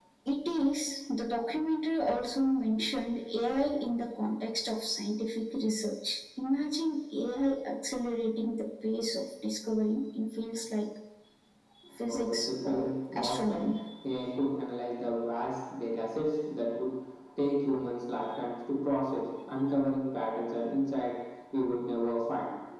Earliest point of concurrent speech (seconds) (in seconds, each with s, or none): 12.1 s